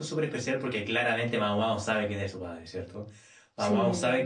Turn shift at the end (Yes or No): No